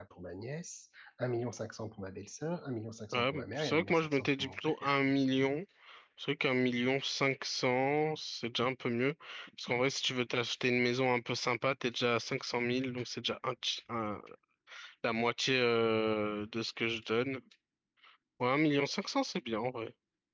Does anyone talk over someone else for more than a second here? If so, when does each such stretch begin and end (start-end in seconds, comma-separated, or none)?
3.1-4.7